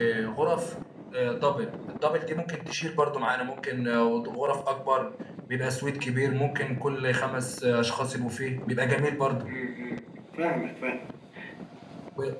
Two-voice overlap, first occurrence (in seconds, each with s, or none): none